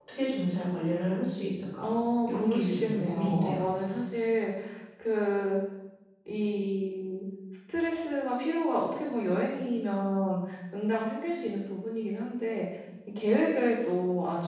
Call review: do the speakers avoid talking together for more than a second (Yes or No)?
No